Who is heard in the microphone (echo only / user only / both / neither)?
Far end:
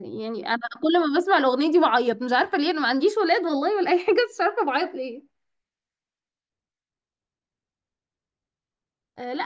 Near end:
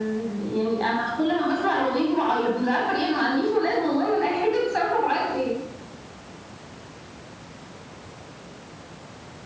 echo only